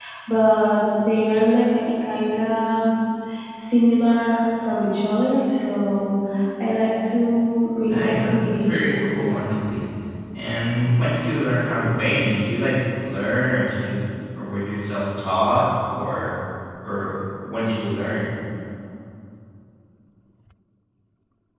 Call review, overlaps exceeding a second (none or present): present